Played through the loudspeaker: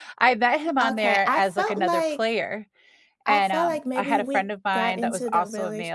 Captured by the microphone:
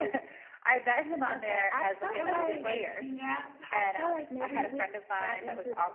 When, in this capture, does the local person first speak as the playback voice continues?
2.1 s

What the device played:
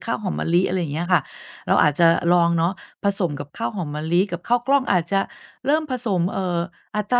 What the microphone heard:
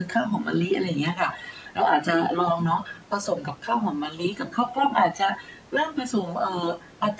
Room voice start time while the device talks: none

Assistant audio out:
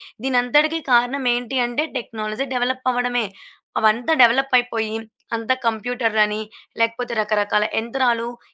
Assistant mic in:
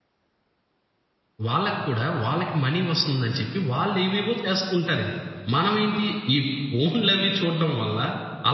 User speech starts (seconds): 1.5 s

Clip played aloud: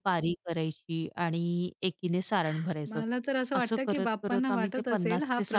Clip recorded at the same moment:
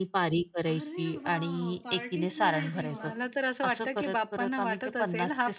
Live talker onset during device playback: 0.7 s

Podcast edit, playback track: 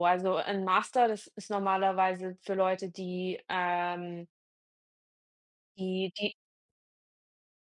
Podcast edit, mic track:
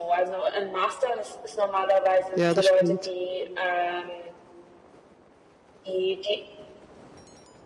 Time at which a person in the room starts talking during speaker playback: 2.3 s

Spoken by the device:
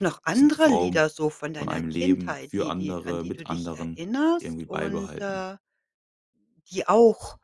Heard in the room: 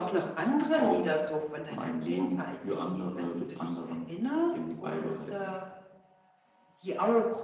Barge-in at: none

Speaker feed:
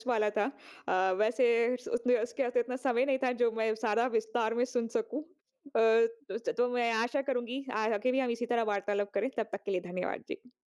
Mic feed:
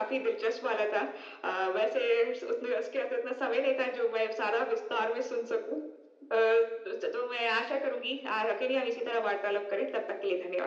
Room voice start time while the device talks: none

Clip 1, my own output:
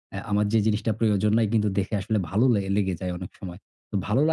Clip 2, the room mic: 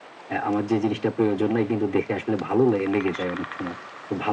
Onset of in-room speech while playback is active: none

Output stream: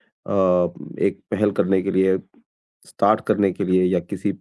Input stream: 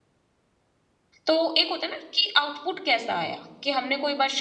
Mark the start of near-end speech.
1.3 s

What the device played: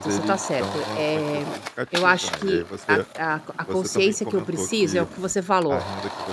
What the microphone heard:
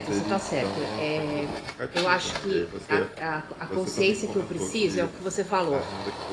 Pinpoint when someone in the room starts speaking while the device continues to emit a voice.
none

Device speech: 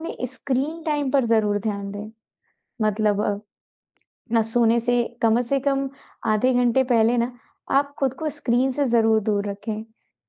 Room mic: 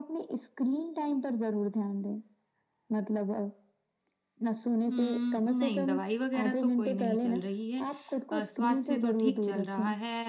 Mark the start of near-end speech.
4.9 s

